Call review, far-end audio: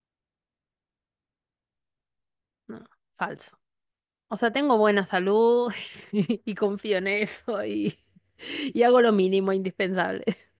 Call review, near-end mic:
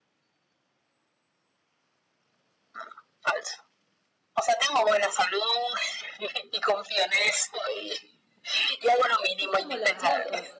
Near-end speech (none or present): present